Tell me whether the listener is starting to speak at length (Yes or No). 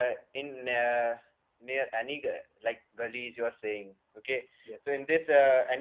No